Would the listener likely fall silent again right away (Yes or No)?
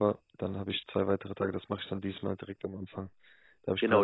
No